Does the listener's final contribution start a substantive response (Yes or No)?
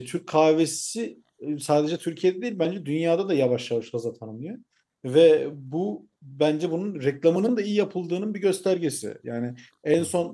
No